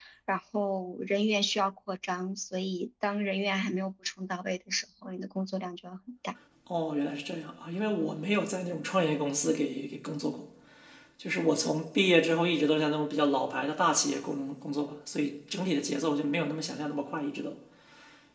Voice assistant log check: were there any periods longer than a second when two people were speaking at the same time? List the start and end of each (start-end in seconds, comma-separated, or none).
none